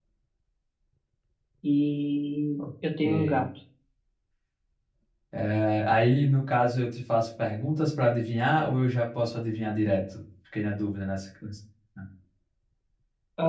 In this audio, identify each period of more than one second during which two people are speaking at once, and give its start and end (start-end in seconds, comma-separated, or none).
none